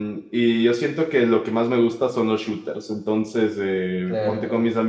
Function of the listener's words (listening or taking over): listening